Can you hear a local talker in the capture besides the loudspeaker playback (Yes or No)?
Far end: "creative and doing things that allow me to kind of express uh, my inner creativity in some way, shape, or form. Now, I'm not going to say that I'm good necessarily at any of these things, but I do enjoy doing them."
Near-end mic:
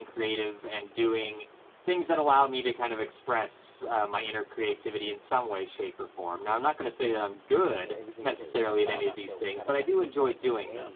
Yes